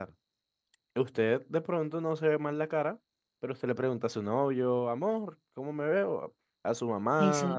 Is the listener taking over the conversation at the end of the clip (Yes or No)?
No